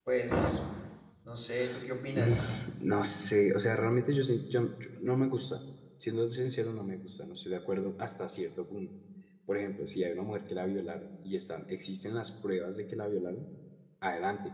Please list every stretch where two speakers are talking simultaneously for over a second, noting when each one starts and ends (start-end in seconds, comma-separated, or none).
none